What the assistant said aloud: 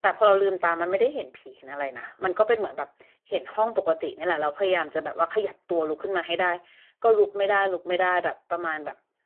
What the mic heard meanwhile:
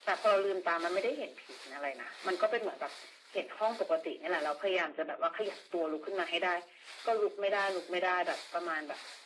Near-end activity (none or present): none